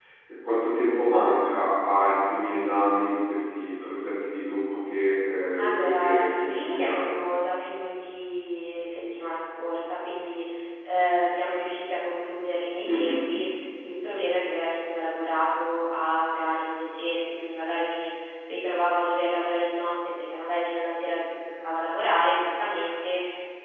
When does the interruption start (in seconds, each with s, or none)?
5.6 s